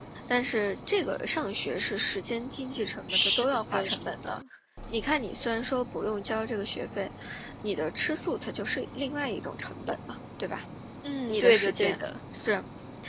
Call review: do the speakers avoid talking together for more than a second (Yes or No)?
No